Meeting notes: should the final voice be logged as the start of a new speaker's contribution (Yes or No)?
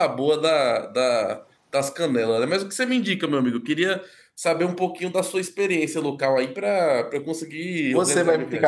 Yes